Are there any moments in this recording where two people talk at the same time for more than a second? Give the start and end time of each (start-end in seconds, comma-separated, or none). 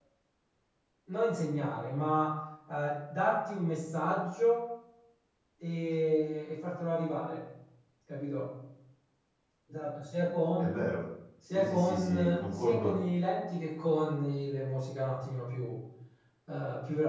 11.5-12.9